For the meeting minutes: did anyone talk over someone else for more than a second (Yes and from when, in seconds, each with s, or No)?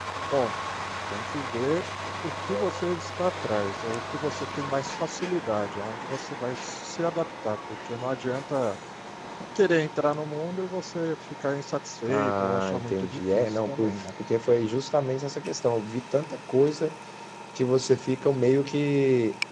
Yes, from 12.1 s